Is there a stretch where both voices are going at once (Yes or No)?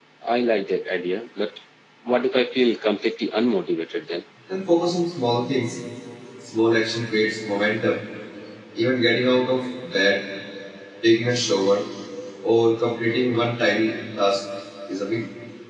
No